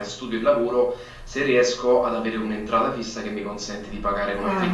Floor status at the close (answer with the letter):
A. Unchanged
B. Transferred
B